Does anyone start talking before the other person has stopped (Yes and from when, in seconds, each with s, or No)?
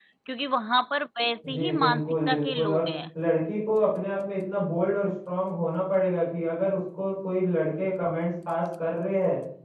Yes, from 1.4 s